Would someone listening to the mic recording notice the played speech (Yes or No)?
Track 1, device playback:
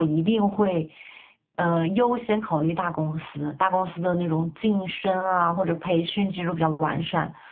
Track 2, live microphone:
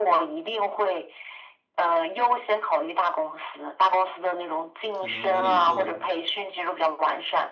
Yes